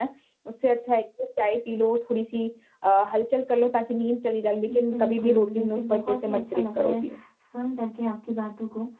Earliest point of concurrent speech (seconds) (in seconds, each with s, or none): 4.7 s